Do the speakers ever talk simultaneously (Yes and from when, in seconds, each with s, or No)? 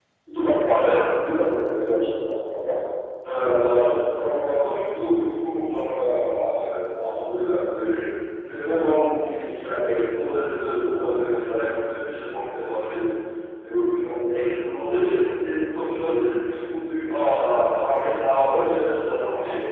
No